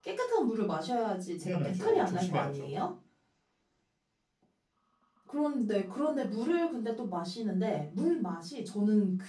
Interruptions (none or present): present